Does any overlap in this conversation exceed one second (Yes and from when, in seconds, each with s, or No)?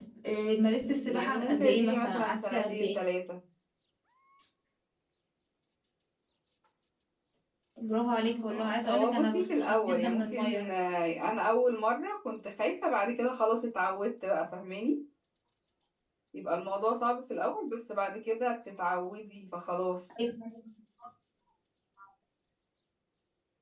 Yes, from 1.1 s